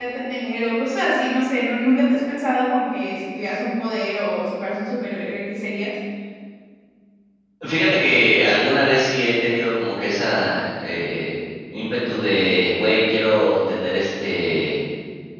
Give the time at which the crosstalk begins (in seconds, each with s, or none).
none